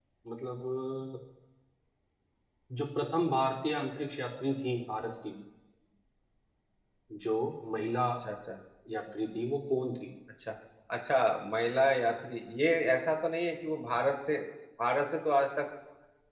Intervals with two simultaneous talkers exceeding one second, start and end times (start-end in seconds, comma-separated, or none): none